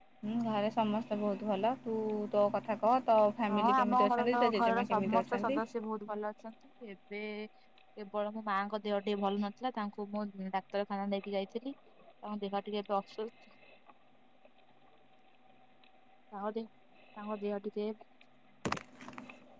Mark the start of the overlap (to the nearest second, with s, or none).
3 s